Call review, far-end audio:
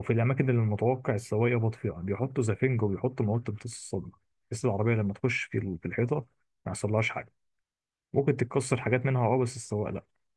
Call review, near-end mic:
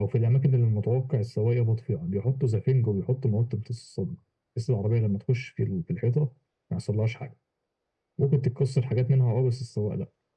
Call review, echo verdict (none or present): present